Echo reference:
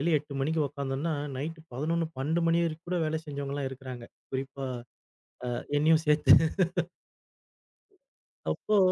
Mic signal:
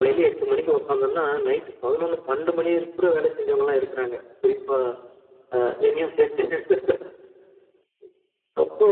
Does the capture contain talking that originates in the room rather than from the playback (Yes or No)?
No